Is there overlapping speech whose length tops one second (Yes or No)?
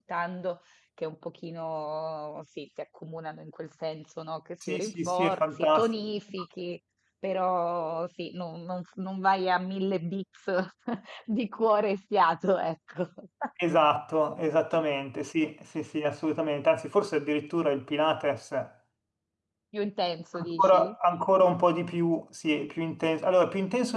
Yes